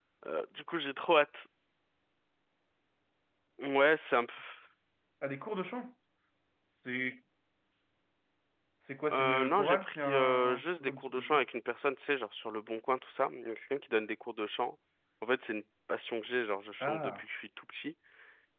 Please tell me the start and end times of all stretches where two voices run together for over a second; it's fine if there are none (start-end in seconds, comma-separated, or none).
9.1-11.4